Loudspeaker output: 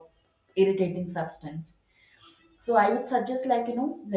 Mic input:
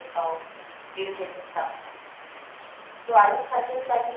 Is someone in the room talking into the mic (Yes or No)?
No